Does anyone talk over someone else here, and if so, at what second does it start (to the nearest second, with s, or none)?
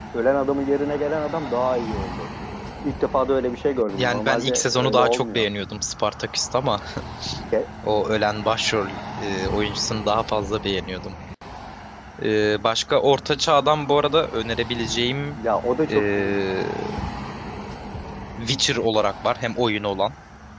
4 s